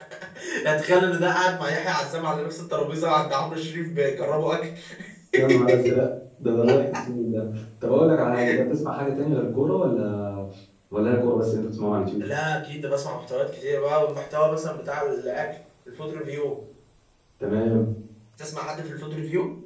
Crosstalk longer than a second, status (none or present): none